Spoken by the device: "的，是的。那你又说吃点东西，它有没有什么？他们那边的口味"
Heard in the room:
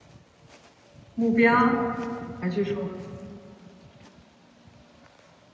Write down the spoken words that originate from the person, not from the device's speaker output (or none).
目标，还是说